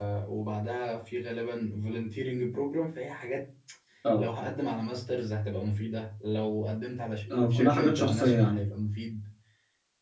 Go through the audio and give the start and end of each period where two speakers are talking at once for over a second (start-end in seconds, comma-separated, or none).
7.3-8.6